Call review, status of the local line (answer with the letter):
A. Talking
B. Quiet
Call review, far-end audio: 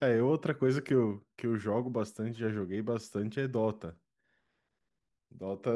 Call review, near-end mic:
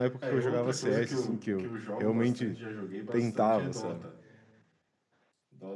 A